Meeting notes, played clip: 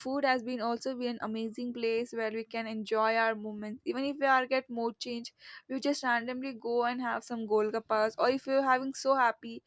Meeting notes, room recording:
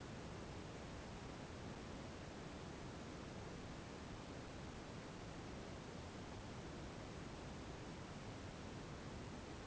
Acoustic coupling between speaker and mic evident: No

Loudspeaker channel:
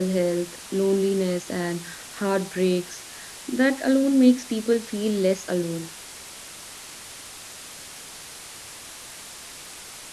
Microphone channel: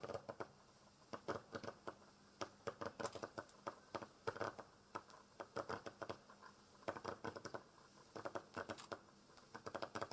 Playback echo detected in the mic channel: No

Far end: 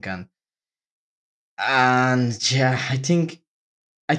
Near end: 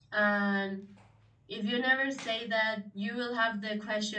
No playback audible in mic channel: Yes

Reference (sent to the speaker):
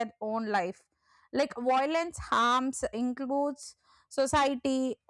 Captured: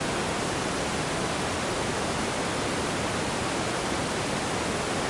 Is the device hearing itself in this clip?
No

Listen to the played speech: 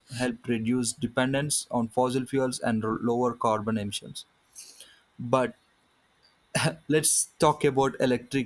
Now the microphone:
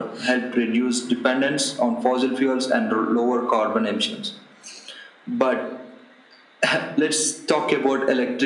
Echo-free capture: No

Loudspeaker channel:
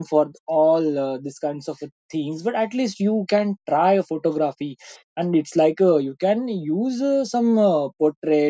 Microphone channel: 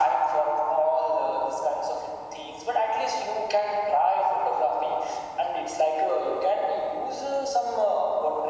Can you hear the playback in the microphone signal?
Yes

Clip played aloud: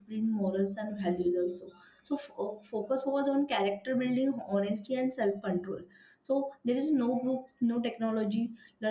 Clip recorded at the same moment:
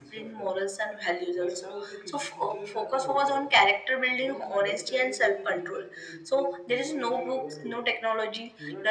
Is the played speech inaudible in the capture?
No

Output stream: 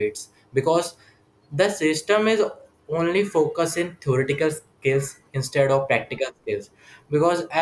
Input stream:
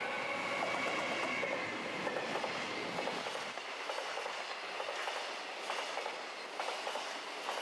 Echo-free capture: Yes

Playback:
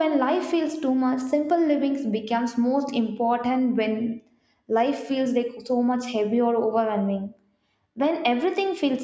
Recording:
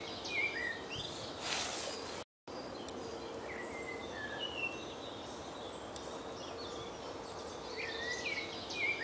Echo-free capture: Yes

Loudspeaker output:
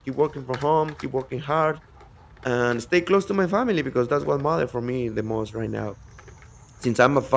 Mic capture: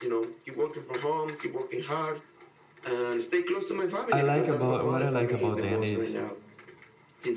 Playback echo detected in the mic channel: Yes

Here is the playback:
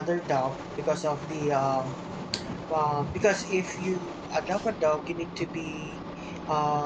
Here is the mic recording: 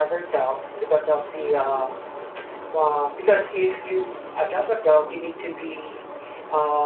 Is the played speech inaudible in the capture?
No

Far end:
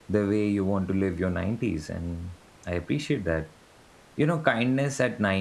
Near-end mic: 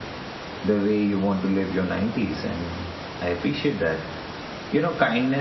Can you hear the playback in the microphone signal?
Yes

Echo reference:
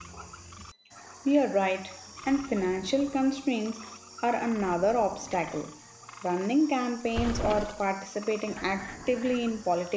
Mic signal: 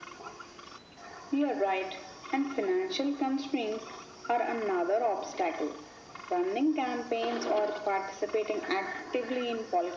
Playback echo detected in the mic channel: Yes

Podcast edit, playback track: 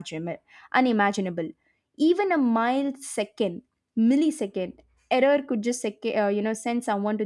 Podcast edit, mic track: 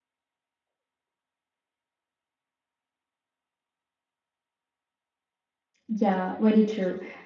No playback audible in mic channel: Yes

